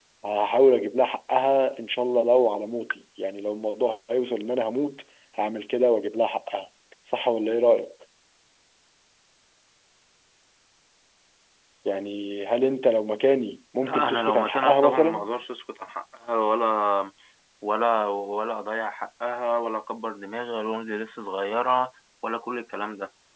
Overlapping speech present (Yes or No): Yes